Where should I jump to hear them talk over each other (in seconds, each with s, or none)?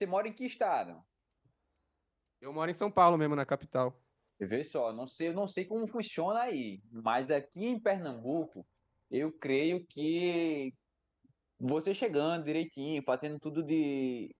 none